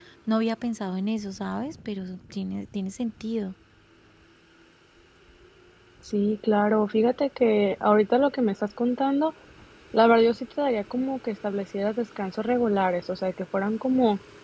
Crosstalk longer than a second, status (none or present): none